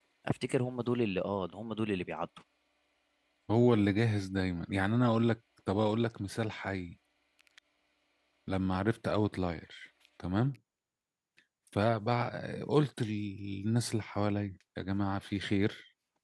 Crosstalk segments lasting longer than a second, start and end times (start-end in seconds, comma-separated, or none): none